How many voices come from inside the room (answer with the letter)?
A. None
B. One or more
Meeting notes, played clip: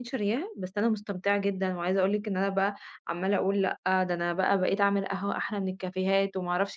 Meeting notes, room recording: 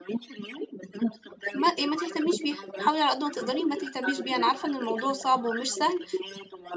B